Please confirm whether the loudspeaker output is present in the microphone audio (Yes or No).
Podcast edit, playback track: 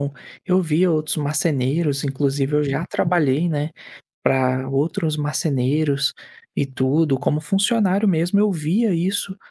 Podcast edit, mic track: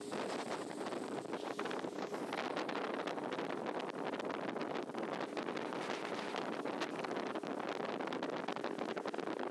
No